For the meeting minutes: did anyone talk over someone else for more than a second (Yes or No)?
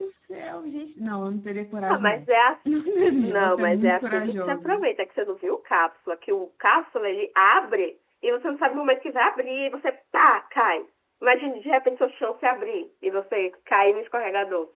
Yes